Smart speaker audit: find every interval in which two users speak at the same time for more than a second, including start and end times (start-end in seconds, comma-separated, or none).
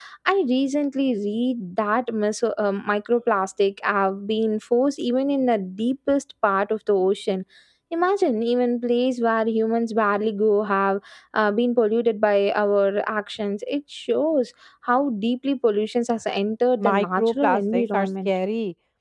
16.8-18.3